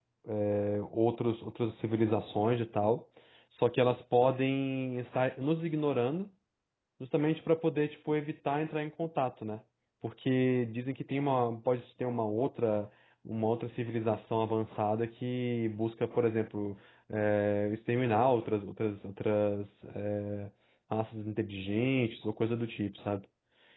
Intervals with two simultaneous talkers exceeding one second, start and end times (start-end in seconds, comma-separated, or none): none